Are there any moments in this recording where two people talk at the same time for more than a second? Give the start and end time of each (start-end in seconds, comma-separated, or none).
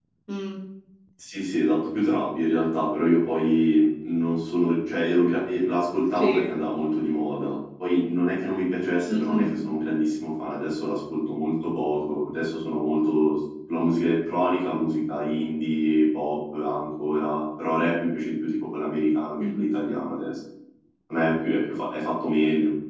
none